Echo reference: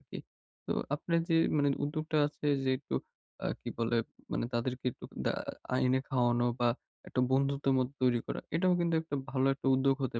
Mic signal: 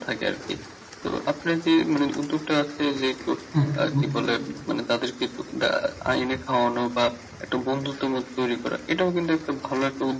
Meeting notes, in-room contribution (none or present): present